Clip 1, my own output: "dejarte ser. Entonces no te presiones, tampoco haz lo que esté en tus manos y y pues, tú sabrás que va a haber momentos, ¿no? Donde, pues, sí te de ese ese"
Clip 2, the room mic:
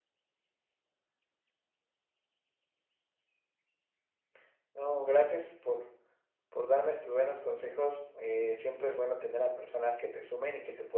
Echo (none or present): none